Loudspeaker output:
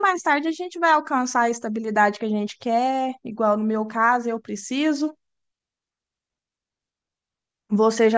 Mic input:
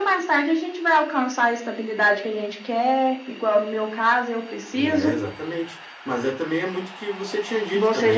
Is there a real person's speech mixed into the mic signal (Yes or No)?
Yes